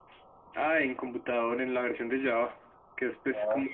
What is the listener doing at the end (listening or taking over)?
listening